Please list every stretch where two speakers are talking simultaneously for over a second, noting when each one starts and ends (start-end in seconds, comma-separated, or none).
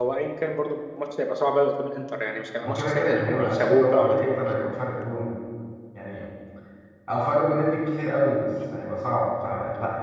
2.7-4.4